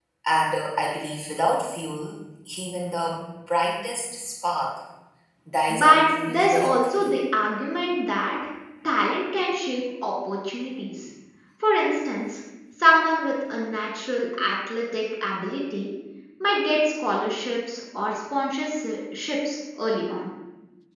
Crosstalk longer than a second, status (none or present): present